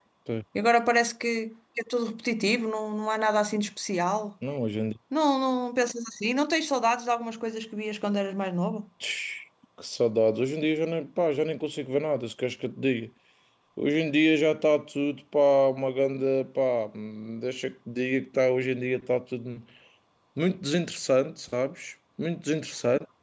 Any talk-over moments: No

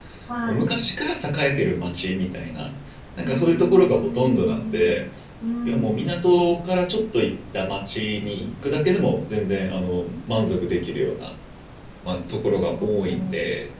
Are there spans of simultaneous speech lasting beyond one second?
Yes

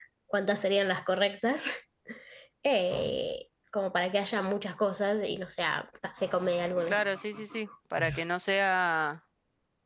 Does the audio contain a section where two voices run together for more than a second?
No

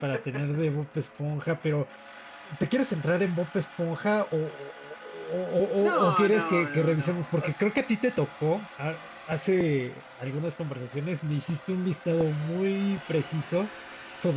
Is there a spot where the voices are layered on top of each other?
Yes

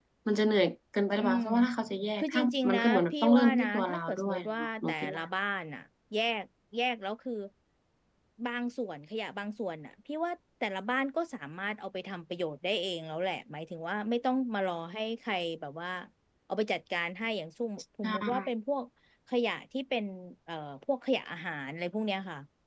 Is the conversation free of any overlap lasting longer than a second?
No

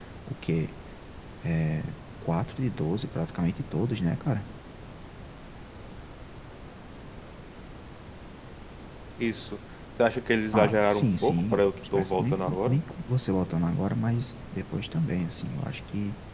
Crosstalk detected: Yes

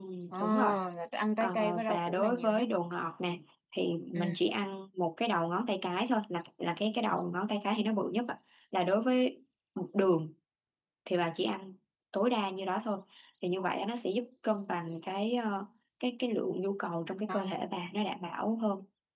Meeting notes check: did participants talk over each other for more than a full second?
Yes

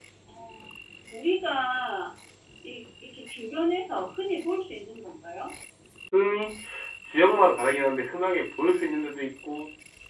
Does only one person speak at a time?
Yes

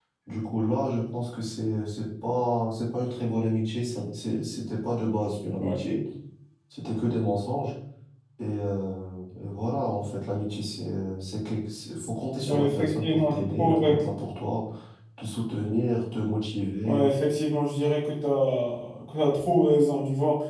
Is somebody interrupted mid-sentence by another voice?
Yes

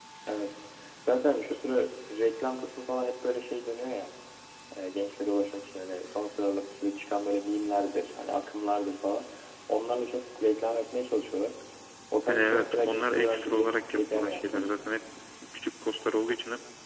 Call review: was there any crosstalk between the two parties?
Yes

